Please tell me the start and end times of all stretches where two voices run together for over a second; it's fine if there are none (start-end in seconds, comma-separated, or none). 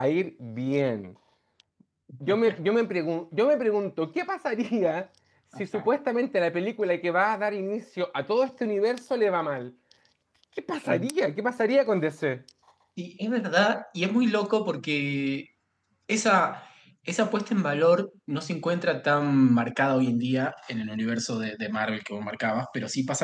none